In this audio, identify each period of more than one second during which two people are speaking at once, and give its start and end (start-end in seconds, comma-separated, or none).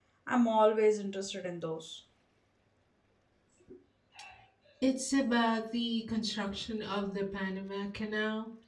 none